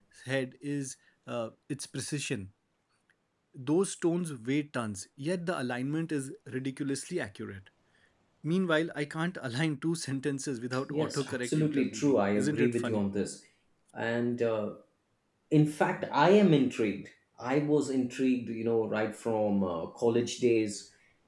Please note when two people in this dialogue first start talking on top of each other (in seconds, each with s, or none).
10.9 s